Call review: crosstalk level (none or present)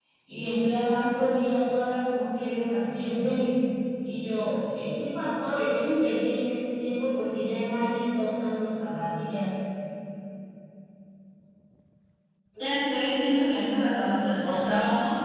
none